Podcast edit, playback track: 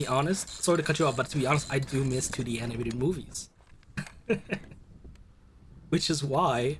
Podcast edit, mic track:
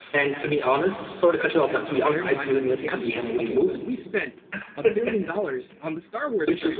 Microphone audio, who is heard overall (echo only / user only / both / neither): both